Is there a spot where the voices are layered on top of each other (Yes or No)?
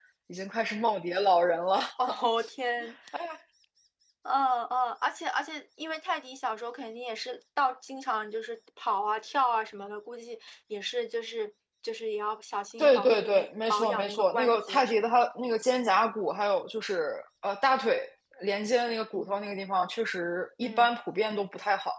Yes